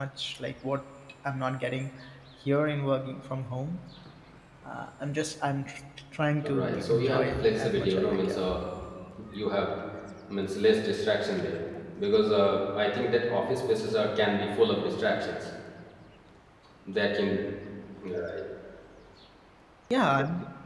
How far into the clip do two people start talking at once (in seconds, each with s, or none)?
6.4 s